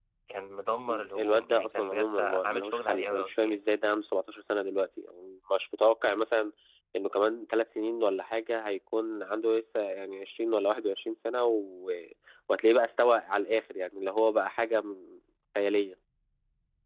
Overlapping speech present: Yes, from 1.2 s

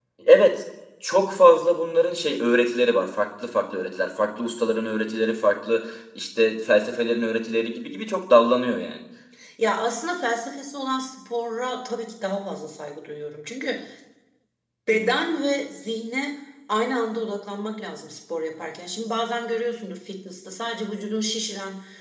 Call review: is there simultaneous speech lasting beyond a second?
No

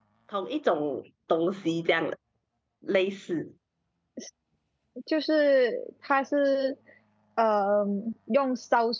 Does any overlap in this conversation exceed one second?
No

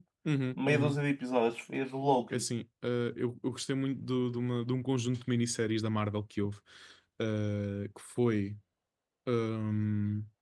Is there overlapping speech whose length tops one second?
No

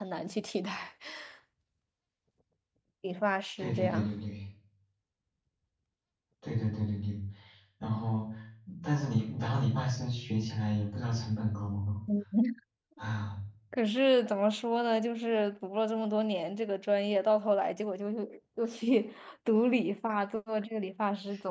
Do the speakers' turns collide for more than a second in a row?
No

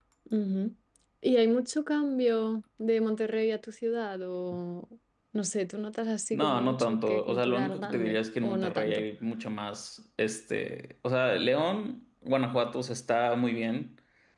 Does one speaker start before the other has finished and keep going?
Yes, from 6.3 s

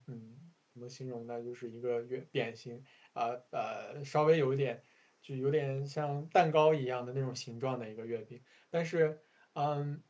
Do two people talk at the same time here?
No

